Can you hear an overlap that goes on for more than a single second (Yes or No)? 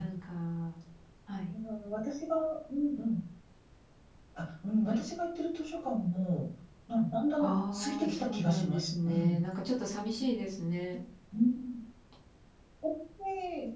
Yes